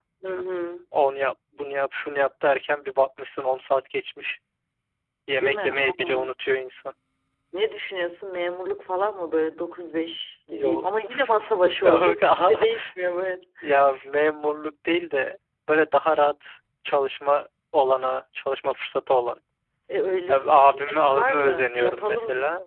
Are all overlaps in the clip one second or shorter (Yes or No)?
No